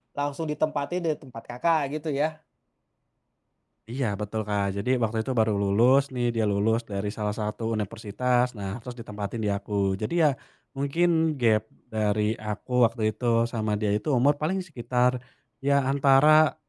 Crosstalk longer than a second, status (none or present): none